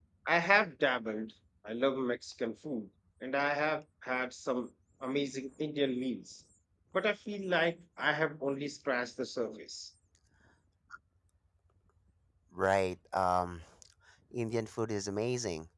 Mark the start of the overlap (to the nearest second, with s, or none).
none